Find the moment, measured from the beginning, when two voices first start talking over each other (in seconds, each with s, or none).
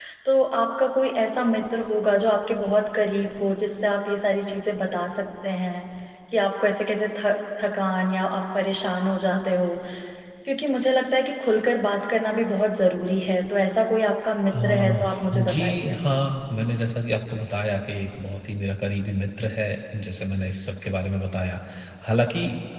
14.5 s